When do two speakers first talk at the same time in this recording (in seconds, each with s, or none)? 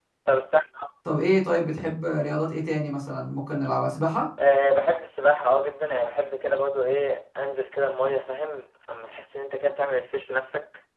none